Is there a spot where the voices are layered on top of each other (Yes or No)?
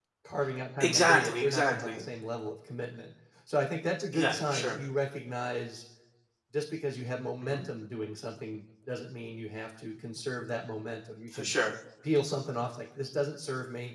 Yes